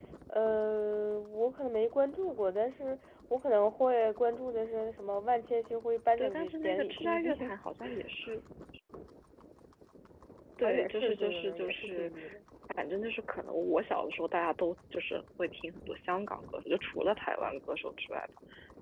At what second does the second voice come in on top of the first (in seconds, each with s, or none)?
6.2 s